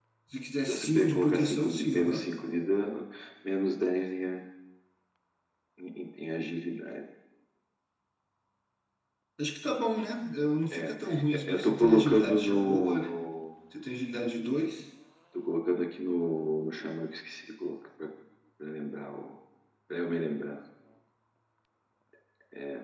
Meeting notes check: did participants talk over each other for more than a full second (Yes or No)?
Yes